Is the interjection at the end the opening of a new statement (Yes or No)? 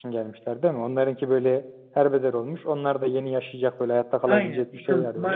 Yes